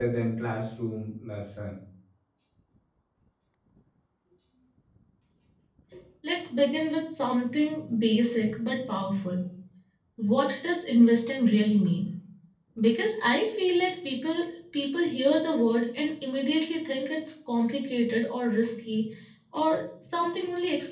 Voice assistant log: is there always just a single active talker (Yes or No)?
Yes